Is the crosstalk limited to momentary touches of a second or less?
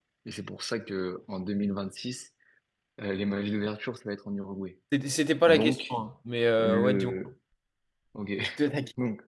Yes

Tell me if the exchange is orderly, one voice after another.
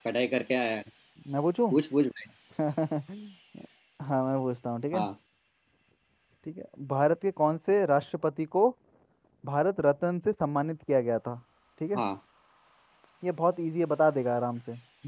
Yes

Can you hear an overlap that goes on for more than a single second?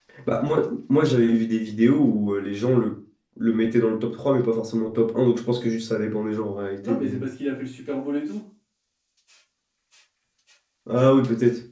No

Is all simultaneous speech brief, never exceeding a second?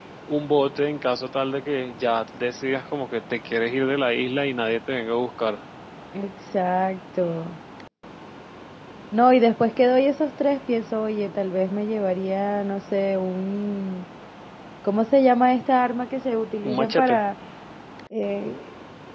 Yes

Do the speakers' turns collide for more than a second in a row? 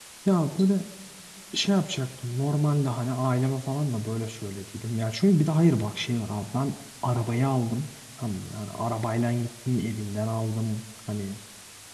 No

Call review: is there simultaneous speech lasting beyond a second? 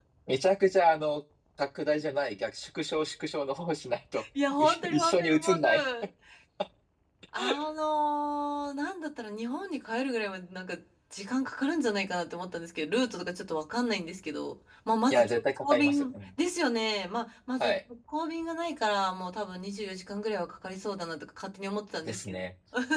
Yes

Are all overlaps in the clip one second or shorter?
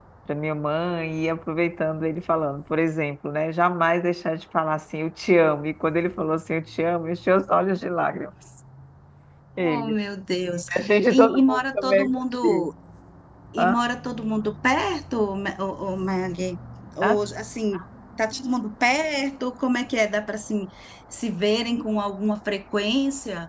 No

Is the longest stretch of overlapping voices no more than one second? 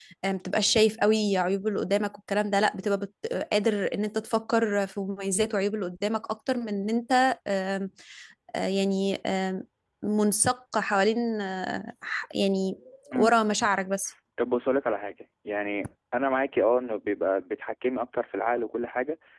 Yes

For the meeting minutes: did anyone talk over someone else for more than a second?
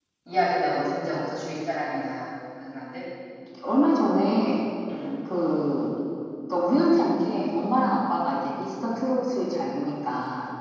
No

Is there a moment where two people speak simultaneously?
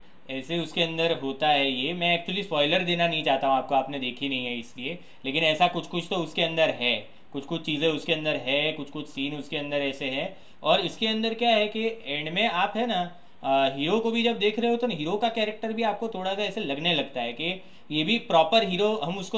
No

